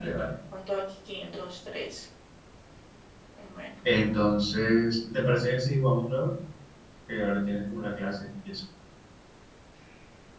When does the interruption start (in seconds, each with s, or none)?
none